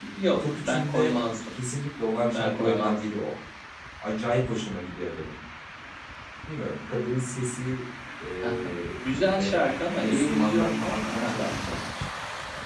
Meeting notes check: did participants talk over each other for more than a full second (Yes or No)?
Yes